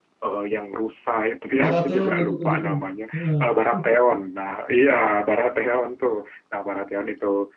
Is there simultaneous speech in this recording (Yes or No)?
Yes